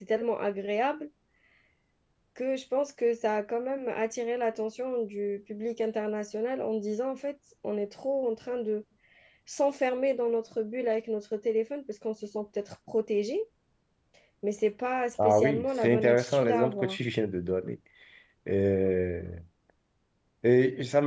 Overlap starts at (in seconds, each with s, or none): 15.2 s